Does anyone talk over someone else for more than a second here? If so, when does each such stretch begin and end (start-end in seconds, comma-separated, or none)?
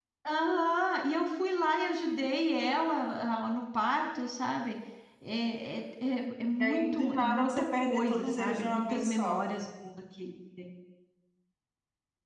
6.6-9.4